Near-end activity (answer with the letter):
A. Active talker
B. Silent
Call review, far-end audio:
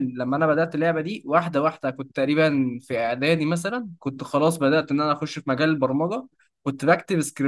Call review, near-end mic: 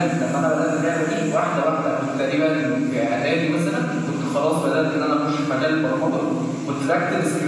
B